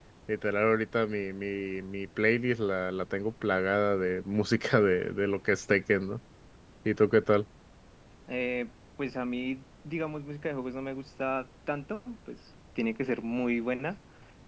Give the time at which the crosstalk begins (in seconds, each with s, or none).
none